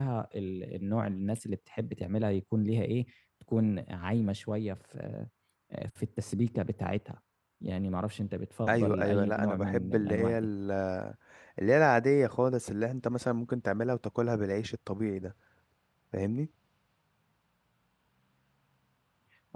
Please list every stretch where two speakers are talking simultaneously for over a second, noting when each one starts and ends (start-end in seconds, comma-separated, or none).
8.7-10.5